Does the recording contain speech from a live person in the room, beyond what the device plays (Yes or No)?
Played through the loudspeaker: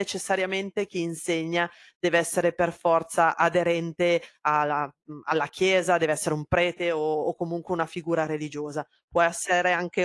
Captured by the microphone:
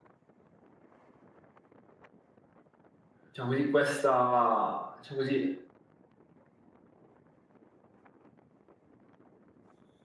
Yes